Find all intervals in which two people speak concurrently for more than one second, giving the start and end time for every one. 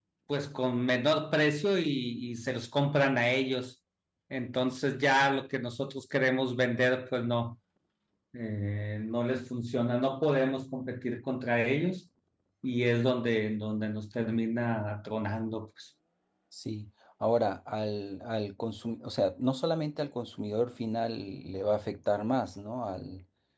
none

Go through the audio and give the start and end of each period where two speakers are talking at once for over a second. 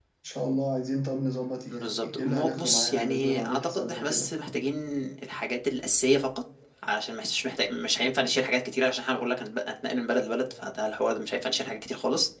1.7-4.3

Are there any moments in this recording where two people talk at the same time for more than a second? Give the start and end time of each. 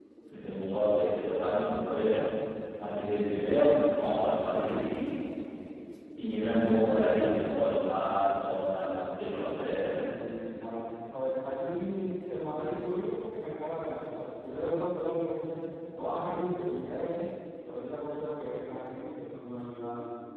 none

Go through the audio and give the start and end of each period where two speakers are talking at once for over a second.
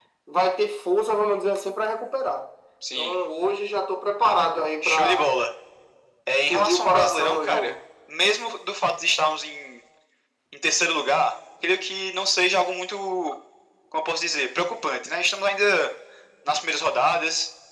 6.3-7.7

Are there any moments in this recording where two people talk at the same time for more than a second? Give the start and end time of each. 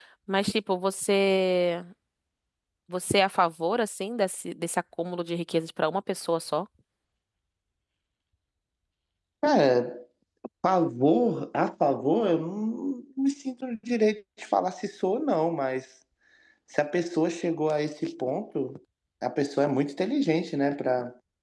none

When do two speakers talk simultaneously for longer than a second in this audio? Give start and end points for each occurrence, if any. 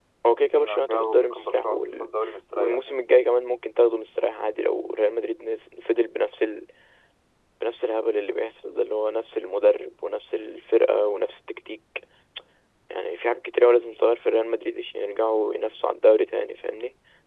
0.5-2.1

